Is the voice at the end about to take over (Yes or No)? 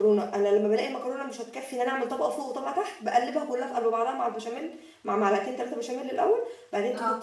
No